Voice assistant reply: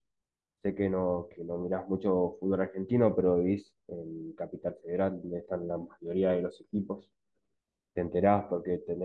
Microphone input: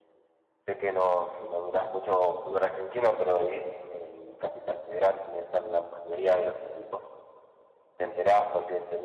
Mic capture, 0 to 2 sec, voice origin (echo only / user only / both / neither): echo only